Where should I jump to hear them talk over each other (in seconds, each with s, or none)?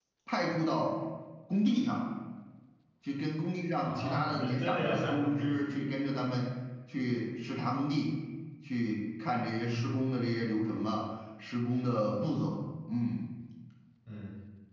3.8 s